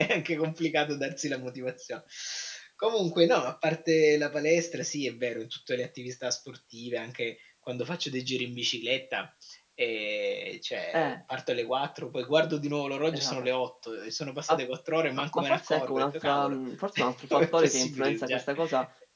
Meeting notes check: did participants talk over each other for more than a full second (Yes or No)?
Yes